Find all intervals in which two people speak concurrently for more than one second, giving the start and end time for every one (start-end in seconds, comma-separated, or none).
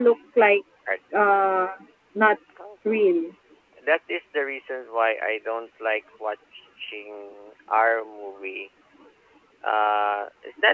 none